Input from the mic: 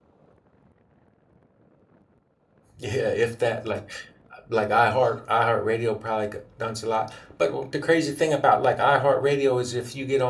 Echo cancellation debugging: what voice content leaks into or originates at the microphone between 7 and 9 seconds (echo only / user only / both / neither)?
user only